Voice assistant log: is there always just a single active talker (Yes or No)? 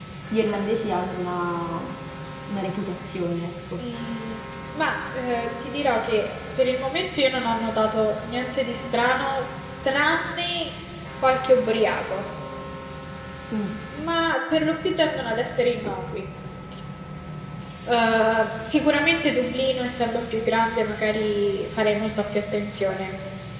Yes